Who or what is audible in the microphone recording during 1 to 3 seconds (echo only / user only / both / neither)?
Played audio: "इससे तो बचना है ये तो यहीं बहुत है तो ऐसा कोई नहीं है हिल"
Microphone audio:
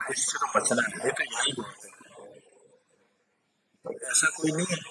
echo only